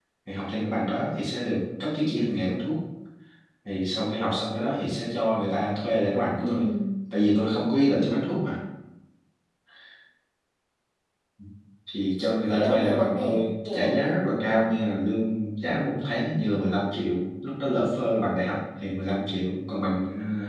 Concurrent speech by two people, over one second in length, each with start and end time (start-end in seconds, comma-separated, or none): 12.5-14.0